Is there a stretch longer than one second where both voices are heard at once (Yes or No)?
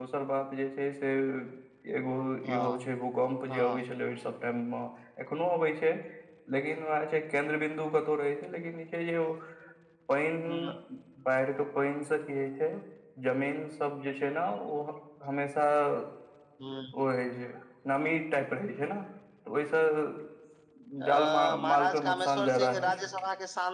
Yes